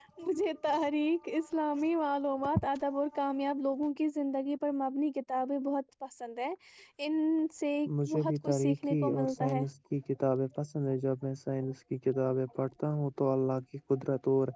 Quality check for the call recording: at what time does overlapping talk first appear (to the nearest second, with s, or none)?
8 s